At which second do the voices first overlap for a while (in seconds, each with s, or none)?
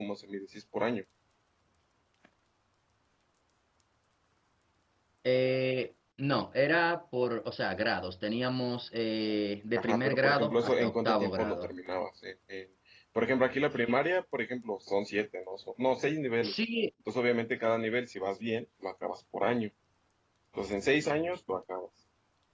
9.8 s